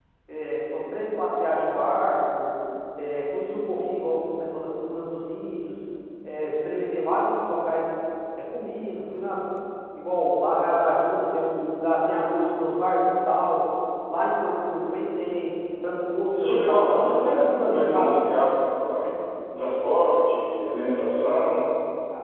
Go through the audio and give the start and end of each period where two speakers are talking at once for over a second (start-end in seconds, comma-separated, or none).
16.3-18.1